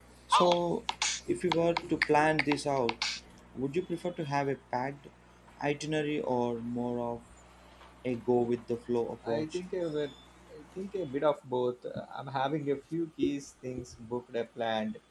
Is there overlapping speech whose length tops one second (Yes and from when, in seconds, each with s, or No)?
No